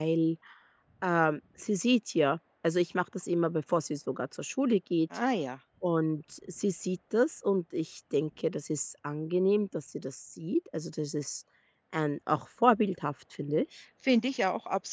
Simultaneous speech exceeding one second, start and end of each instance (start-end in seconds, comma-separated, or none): none